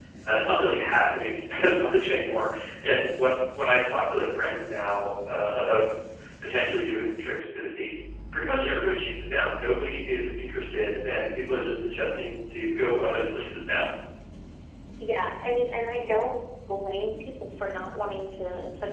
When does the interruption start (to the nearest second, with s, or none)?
none